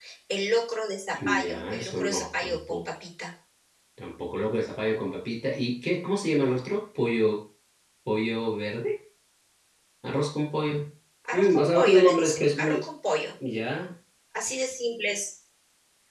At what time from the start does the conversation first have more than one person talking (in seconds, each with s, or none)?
1.1 s